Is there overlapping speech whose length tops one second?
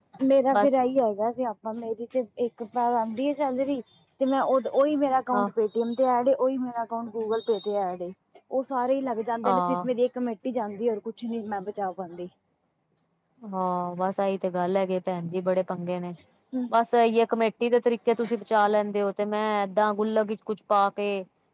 No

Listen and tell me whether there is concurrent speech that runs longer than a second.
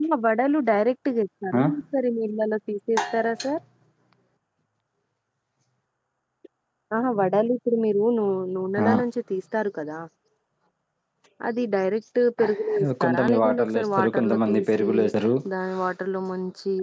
Yes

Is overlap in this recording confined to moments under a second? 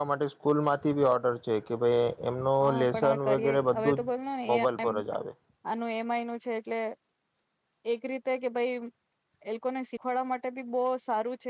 No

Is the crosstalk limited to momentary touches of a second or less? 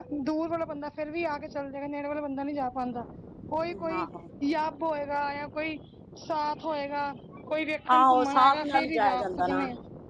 No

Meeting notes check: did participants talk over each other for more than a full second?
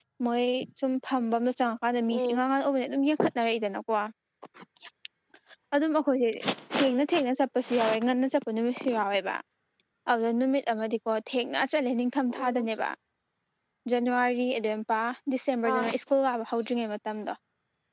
No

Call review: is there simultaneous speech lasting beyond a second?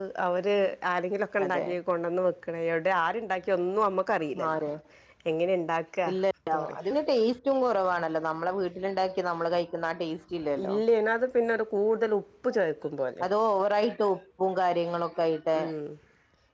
No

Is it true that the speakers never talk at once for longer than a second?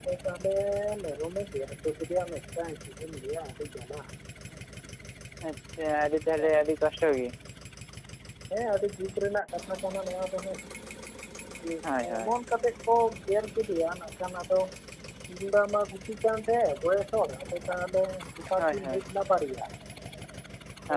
Yes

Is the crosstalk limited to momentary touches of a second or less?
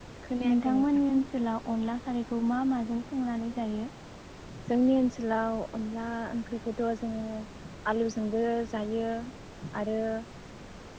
Yes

